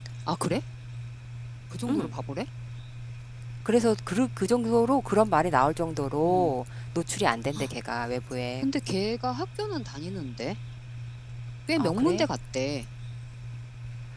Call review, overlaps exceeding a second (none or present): none